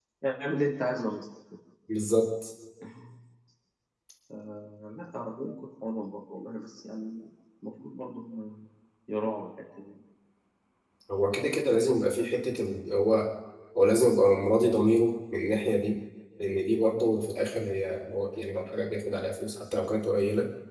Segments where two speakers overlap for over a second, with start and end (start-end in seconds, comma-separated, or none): none